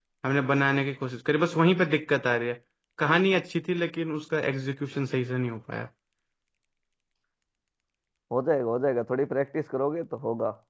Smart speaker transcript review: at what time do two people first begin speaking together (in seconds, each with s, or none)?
none